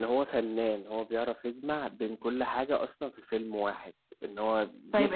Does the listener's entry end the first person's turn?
Yes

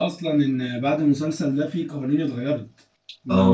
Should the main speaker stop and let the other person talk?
Yes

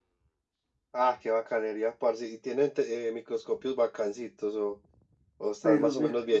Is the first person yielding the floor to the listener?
Yes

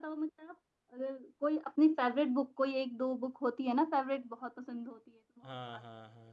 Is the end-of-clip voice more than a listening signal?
Yes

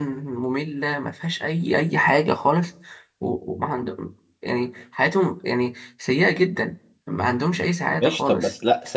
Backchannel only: No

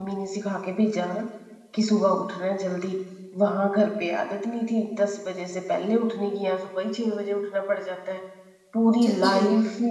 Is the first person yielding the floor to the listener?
No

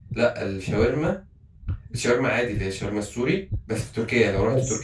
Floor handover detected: No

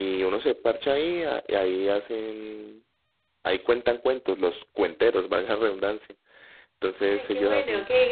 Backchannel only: No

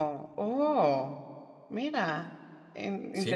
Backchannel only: No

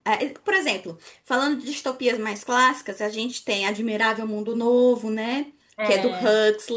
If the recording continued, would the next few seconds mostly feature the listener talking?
No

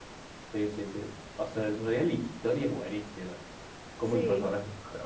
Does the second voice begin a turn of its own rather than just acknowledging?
No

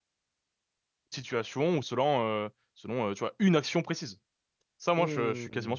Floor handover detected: Yes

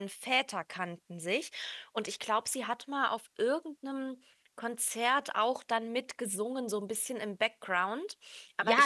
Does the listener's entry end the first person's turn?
Yes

